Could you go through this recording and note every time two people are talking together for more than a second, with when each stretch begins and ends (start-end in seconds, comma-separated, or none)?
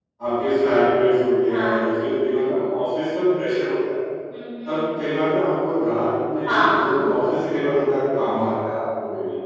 none